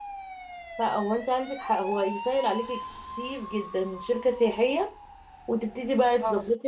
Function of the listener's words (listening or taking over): listening